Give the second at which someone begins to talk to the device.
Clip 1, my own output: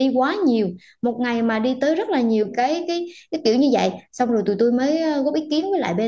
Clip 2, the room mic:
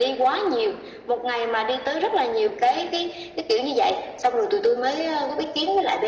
none

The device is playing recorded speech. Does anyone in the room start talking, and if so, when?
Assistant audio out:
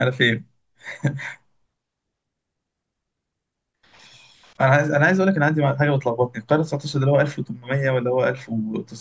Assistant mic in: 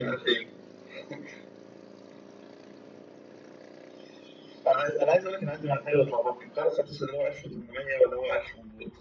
none

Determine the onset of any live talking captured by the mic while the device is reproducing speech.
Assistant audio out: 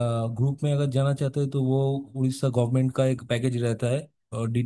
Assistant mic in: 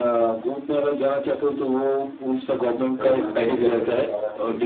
3 s

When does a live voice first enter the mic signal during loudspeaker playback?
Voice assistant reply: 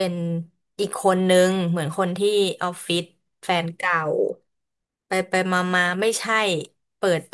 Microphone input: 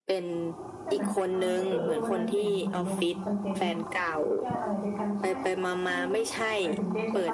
1 s

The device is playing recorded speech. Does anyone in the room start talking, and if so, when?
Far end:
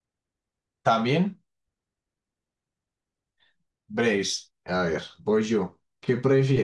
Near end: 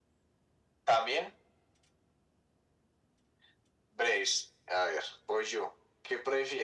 none

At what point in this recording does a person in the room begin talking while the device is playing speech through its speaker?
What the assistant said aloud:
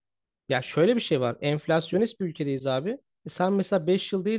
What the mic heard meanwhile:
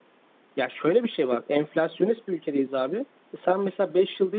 none

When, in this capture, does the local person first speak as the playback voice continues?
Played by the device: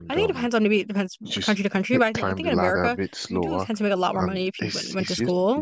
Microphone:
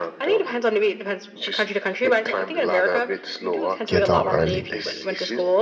4 s

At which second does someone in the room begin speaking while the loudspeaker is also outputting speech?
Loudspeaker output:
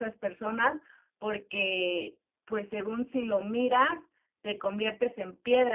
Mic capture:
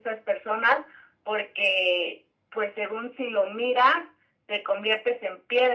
none

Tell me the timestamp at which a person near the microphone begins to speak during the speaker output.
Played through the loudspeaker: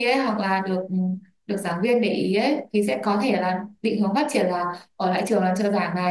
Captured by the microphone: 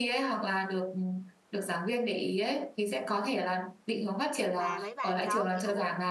5 s

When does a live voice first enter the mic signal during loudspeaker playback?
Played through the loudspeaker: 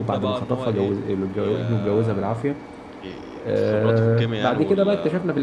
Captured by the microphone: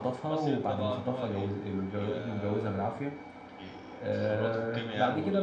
none

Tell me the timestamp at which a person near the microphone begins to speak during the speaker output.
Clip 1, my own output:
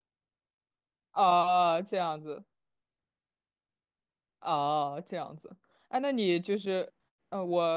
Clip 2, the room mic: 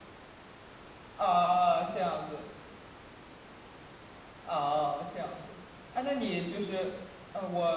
none

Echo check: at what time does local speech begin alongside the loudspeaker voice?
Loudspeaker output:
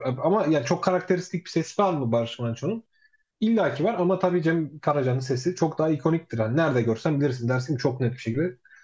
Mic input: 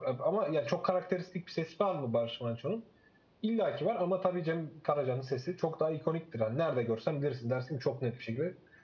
none

